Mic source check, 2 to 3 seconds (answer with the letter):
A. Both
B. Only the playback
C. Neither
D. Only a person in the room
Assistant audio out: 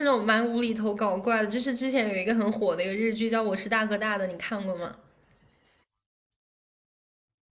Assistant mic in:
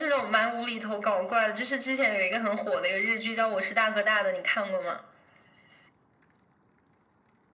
B